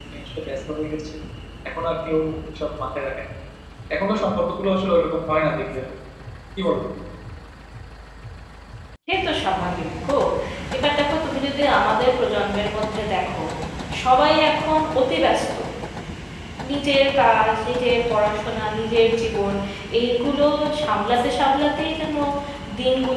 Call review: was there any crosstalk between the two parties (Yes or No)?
No